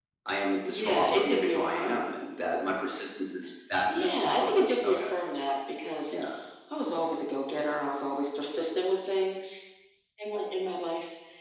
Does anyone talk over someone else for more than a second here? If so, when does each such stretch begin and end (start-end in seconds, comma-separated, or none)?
0.7-2.0, 3.9-5.1